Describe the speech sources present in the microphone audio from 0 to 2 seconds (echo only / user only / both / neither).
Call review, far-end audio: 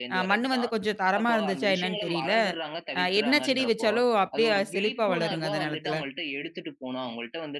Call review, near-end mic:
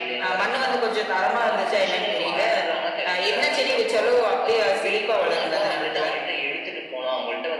echo only